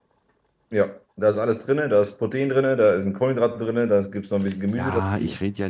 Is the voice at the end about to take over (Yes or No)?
Yes